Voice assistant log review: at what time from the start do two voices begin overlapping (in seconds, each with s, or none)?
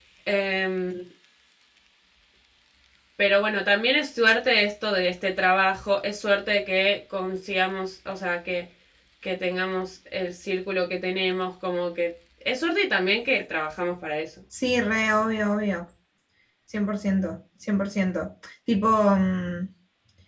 none